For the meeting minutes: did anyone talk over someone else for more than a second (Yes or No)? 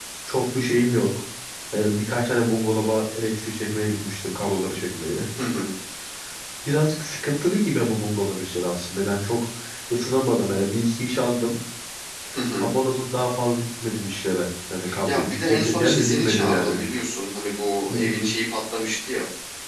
Yes